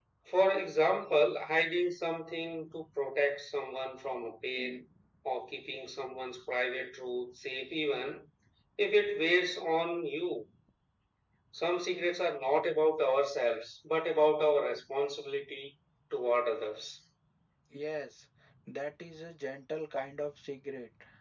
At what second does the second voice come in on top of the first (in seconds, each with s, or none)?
none